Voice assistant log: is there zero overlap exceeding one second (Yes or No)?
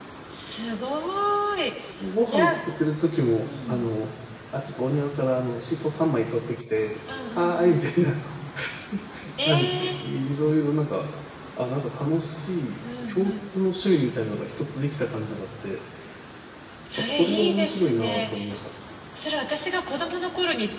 No